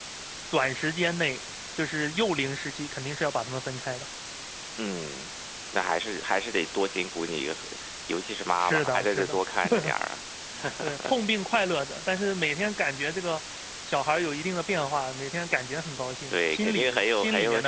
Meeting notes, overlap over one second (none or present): present